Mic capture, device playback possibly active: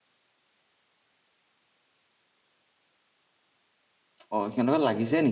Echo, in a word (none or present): none